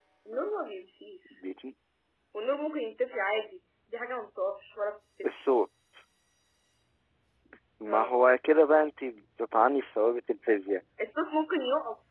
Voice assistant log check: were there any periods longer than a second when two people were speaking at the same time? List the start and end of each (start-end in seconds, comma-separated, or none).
none